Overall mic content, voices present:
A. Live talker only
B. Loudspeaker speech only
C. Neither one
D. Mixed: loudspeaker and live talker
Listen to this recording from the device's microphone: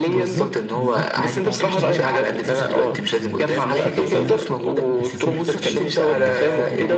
D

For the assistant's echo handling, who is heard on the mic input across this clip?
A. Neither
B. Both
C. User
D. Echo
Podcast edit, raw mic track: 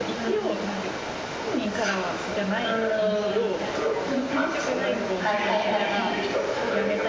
B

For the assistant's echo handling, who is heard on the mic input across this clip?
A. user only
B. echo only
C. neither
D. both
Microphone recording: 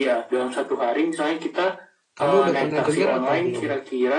D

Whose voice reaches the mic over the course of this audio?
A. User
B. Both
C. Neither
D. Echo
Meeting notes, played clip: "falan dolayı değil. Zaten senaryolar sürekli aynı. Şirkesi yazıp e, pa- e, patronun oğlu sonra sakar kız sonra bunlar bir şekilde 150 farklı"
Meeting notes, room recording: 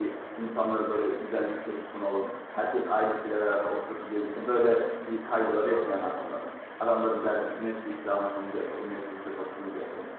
A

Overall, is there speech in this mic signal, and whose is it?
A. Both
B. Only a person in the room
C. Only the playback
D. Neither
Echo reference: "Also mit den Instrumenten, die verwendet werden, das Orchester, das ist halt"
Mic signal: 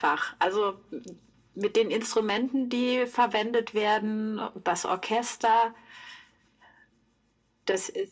C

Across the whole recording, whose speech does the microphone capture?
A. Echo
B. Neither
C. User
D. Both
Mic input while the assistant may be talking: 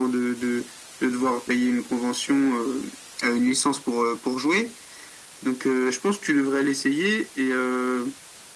A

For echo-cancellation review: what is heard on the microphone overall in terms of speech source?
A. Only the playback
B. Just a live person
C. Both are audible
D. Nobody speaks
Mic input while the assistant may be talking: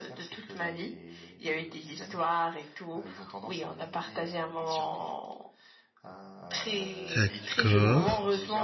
C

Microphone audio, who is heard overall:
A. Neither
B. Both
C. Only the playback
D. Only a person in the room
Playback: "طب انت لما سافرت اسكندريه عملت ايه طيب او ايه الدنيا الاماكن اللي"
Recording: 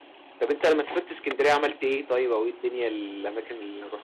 C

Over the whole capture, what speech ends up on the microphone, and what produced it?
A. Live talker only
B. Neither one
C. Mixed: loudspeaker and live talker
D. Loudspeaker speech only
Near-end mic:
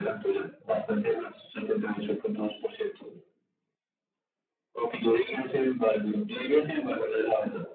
D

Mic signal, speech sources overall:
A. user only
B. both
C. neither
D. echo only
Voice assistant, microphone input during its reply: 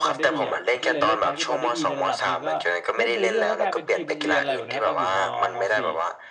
B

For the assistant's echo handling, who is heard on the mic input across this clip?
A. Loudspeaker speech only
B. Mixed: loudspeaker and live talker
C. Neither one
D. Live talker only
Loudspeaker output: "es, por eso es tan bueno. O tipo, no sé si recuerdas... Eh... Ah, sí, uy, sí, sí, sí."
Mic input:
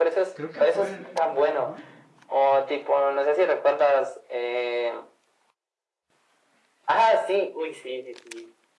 B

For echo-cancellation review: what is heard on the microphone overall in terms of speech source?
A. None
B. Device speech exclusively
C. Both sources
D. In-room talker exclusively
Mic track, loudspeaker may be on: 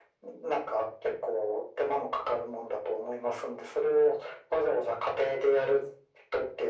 B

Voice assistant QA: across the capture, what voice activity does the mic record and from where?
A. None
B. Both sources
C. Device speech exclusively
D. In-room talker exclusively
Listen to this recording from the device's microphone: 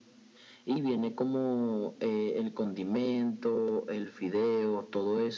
C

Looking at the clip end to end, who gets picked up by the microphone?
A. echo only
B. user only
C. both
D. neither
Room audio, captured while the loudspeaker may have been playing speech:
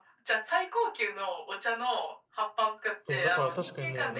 C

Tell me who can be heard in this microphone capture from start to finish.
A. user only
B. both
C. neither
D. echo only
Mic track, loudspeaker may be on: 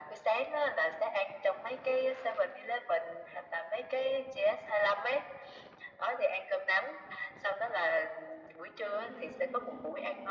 B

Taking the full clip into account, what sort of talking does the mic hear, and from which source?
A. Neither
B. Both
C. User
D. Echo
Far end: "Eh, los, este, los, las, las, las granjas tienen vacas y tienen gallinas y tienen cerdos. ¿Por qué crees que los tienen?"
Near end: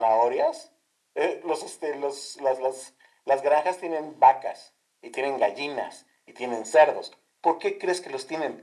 D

